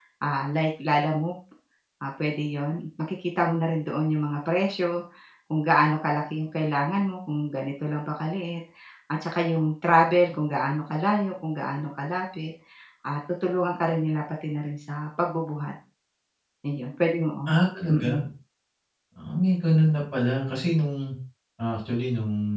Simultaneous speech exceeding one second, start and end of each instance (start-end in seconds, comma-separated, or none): none